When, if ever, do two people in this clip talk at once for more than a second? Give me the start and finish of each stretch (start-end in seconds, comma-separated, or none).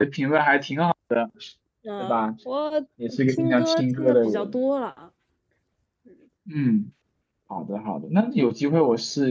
3.3-4.6